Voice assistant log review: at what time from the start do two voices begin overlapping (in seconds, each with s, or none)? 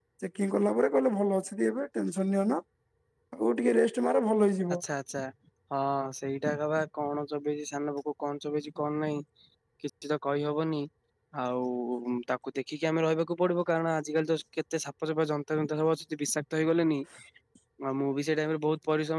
none